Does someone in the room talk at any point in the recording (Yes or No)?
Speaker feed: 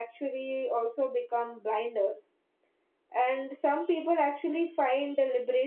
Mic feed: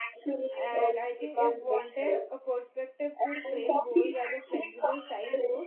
Yes